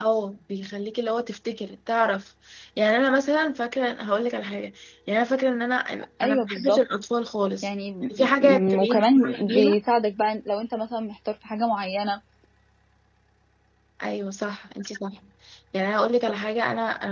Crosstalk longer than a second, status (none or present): present